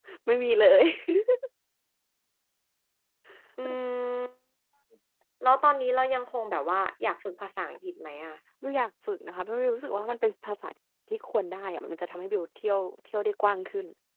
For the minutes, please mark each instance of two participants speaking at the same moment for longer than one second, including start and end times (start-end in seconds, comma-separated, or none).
none